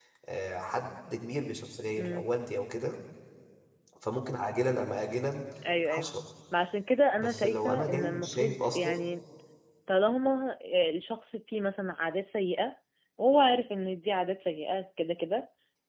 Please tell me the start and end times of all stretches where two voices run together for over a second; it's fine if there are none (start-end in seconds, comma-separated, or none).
7.2-9.0